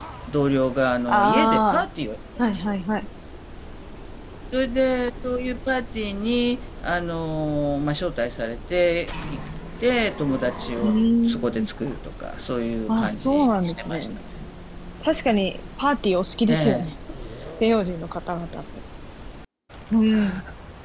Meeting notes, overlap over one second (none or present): present